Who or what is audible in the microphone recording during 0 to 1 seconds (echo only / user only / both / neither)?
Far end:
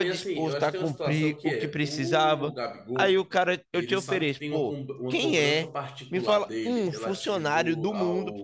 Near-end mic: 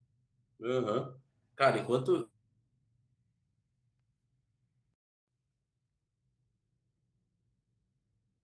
user only